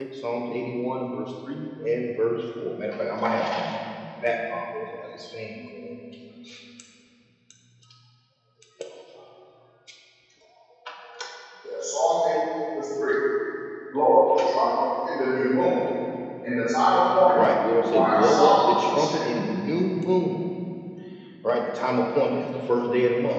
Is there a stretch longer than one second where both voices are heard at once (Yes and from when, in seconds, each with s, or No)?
Yes, from 17.9 s